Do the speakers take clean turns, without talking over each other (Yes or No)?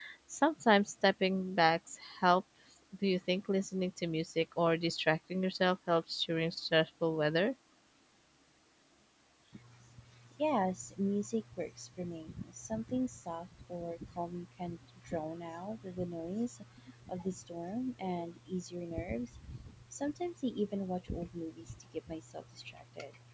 Yes